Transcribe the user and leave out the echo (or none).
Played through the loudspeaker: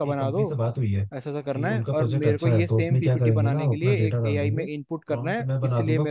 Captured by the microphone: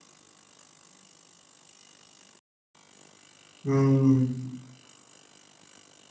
हम्म